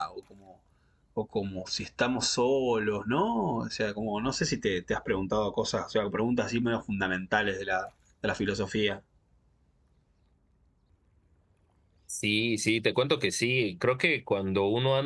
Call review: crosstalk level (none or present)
none